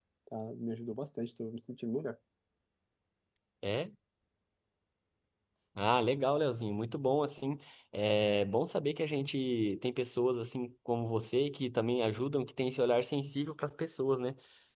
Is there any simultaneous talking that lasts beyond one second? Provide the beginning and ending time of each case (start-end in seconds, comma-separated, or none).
none